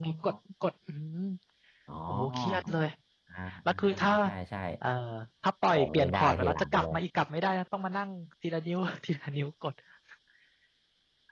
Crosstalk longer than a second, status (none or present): present